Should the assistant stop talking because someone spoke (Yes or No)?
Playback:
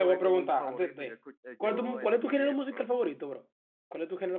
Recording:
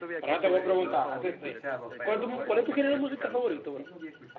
Yes